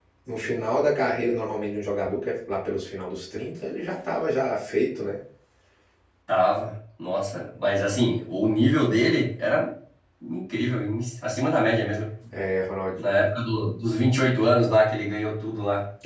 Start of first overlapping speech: none

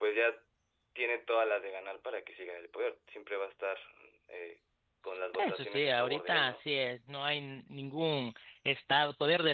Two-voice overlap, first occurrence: 5.3 s

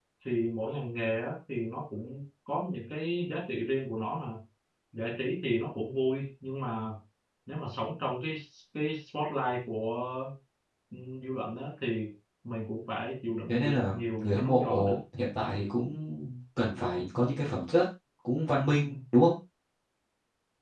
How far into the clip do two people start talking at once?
13.5 s

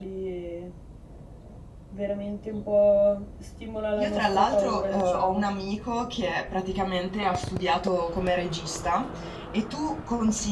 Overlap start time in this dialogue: 4.0 s

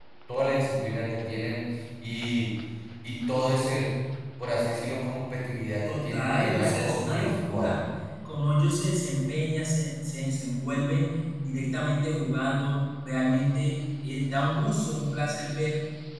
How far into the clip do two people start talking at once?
5.8 s

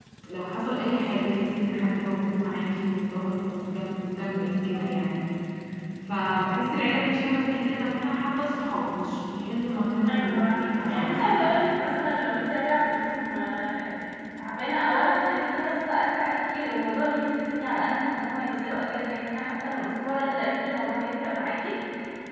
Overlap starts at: 10.0 s

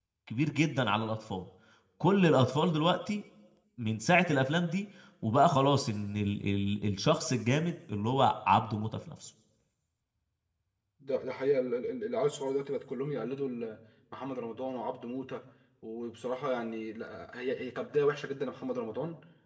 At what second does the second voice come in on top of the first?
none

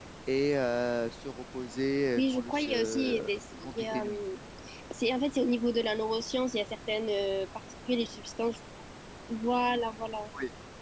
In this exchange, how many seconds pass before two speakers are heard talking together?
2.2 s

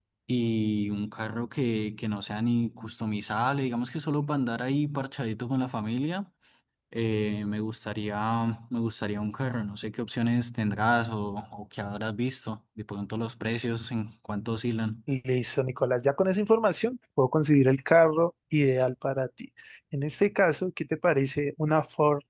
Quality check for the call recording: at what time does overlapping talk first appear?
none

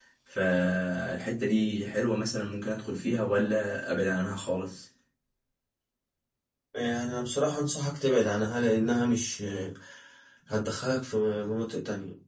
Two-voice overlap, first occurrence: none

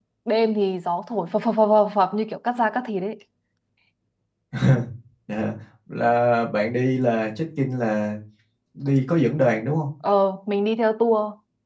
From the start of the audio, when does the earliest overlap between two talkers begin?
none

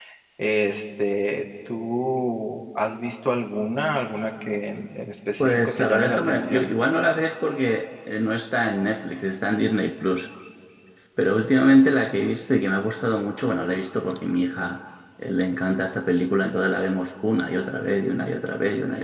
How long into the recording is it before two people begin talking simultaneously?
5.4 s

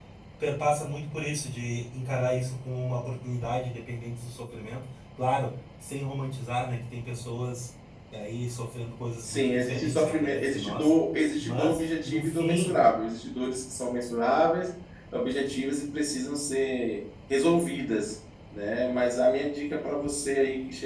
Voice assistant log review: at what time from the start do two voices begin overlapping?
9.2 s

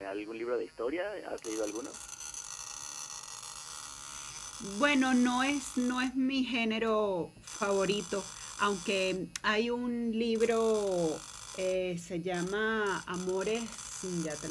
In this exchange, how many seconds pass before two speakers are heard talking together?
none

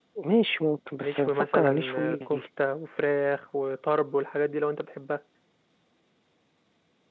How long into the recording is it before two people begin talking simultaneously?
1.0 s

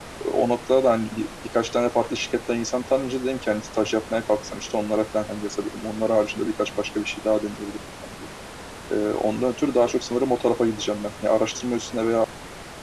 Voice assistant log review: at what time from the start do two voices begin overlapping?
none

